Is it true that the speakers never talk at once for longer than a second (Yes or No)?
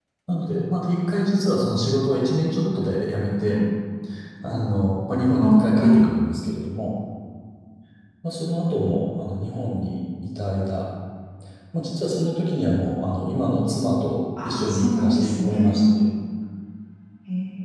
No